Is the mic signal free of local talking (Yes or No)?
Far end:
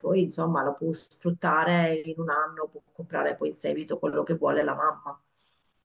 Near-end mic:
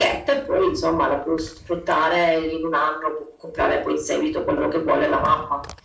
Yes